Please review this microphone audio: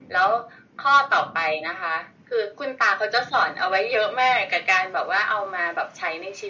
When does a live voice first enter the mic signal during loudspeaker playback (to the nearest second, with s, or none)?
none